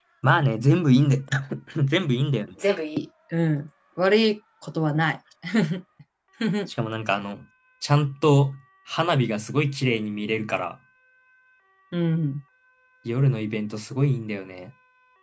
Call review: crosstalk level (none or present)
none